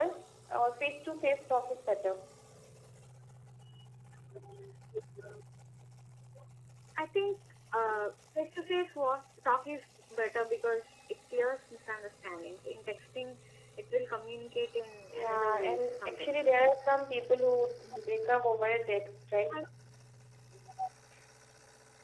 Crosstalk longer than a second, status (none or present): present